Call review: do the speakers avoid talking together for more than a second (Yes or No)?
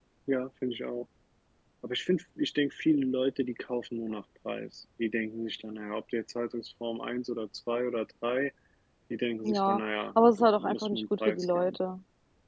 No